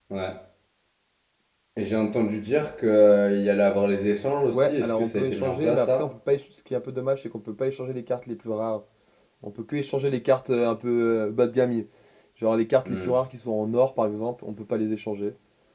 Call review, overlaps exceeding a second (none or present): present